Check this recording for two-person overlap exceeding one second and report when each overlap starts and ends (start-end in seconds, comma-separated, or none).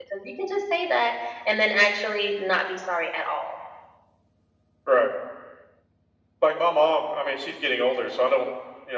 none